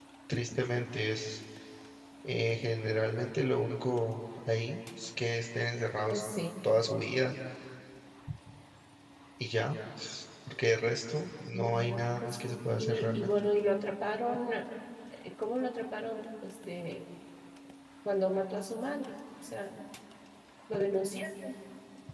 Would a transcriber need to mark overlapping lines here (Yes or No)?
Yes